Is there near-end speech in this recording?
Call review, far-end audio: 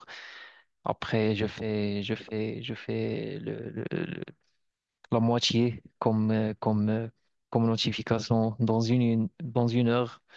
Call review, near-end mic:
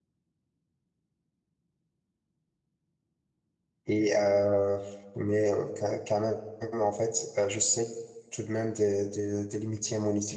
Yes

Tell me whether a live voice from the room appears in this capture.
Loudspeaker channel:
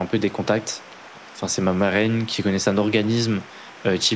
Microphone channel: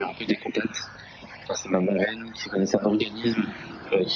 No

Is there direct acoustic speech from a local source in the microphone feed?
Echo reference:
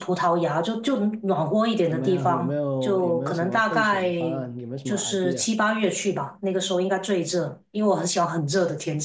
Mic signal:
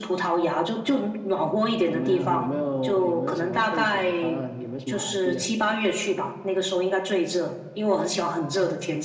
No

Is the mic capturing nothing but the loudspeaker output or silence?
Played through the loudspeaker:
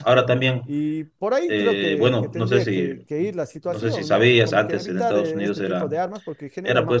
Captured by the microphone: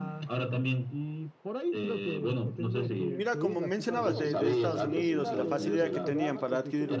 No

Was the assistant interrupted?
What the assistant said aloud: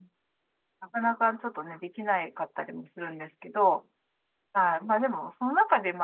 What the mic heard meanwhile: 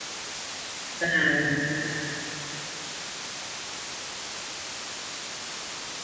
Yes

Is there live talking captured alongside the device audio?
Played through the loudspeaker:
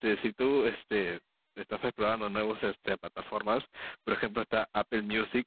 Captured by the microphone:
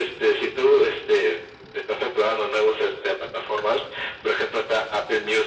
No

